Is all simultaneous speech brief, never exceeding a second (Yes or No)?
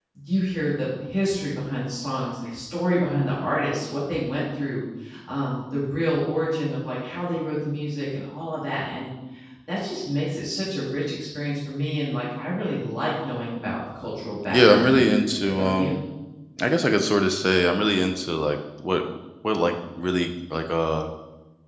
No